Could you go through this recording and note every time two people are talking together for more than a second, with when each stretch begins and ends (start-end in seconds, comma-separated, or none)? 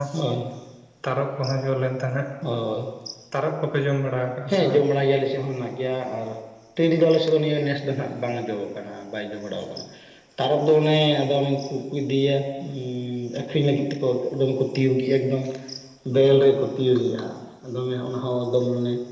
none